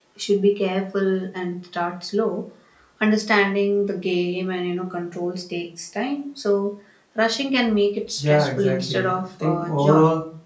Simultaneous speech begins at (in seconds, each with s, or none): 8.2 s